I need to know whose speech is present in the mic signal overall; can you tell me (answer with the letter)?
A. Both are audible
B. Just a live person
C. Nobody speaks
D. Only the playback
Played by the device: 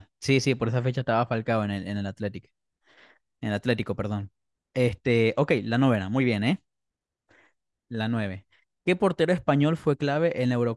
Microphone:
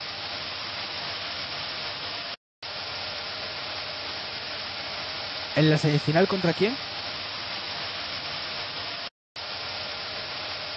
B